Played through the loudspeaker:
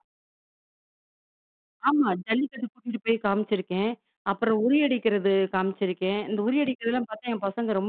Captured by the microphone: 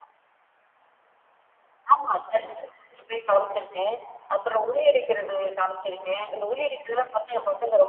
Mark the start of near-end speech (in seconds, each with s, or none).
none